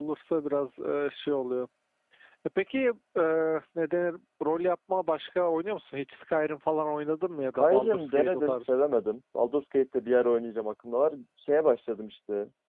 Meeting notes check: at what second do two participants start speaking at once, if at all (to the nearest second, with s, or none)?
7 s